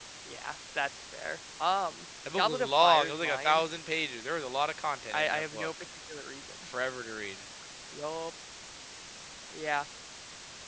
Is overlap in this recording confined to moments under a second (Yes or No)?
No